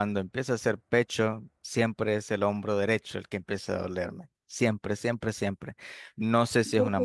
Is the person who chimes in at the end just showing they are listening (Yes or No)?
Yes